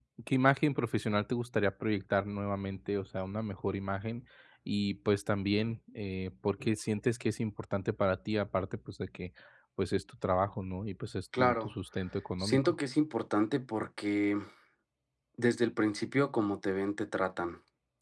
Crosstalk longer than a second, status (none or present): none